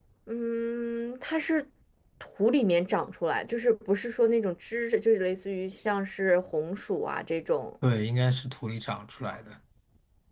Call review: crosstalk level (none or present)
none